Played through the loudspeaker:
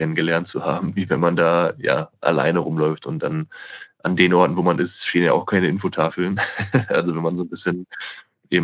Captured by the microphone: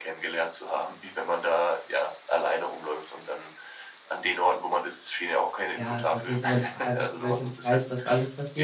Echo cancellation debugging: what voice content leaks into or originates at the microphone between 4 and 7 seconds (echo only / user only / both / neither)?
both